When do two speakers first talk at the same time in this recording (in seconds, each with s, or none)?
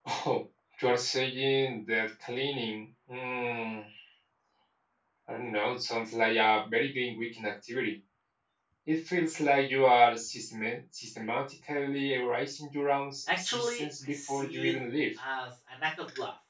13.3 s